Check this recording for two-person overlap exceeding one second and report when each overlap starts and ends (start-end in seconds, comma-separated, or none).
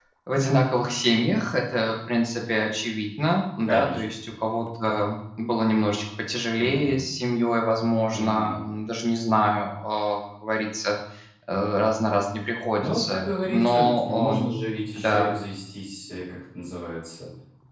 12.8-14.5